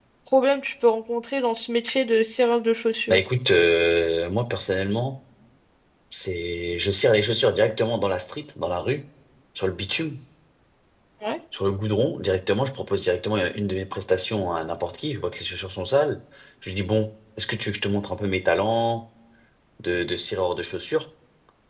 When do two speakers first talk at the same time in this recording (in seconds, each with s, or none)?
none